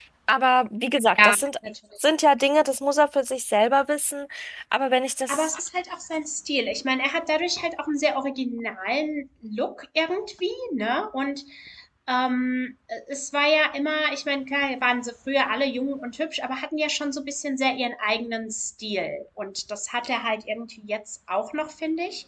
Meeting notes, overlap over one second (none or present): none